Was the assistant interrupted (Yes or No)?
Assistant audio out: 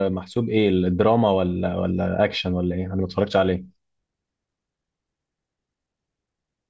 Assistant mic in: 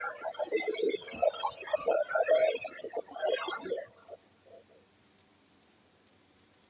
No